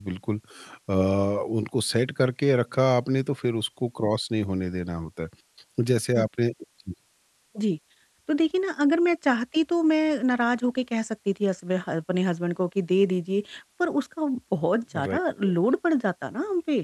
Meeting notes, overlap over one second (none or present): none